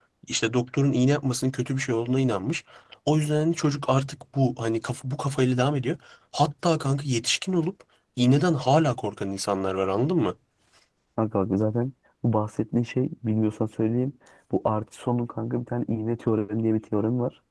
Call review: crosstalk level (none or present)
none